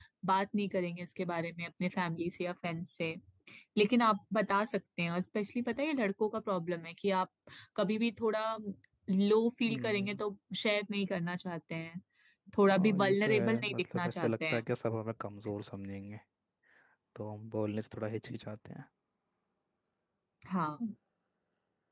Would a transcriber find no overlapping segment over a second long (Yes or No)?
No